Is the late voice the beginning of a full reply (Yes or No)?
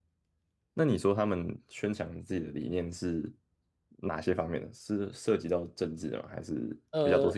Yes